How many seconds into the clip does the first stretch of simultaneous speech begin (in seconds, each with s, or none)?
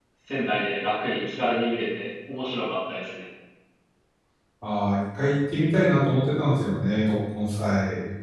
none